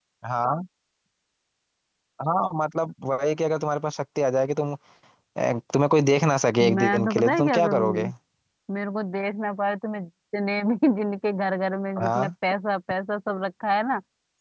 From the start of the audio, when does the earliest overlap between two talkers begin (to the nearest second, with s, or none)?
7 s